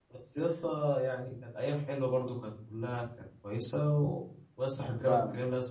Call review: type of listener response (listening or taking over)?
listening